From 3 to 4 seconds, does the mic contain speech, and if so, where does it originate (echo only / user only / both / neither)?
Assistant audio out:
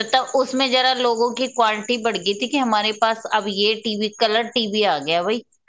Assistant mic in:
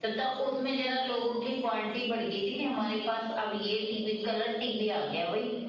echo only